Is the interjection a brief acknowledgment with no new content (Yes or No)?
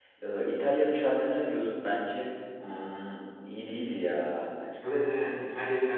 No